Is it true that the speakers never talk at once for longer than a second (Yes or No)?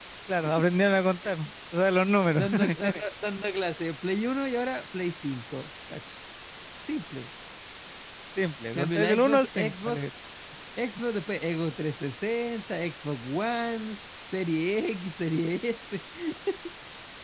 No